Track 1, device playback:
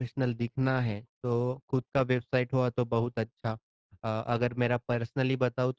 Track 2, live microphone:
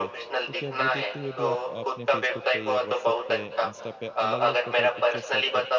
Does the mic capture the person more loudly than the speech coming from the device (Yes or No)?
No